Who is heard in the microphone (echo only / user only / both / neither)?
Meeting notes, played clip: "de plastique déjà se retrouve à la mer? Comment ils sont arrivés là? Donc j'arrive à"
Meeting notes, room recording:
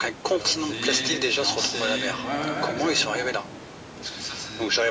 both